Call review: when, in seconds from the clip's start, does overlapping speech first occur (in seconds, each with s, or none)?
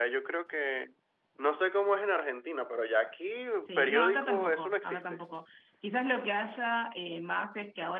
3.7 s